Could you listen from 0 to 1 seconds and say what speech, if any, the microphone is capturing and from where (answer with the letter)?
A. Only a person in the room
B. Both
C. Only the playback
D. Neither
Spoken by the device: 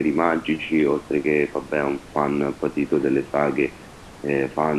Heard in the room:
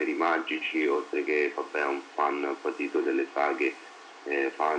C